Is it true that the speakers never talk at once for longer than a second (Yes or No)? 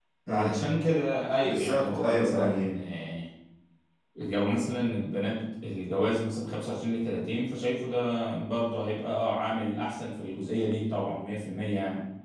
No